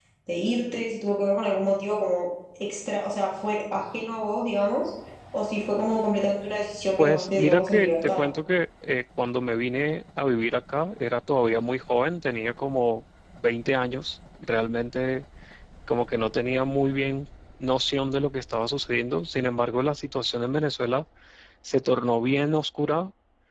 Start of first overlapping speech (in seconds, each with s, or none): 7.0 s